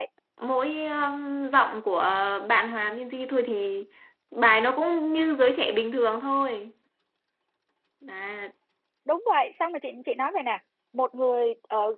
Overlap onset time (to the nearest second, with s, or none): none